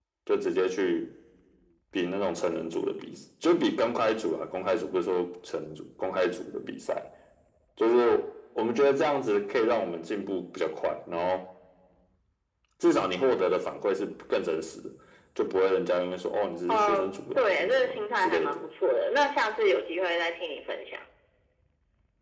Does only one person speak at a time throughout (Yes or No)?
No